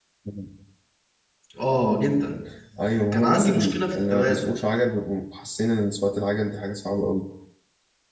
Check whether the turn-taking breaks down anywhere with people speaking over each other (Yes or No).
Yes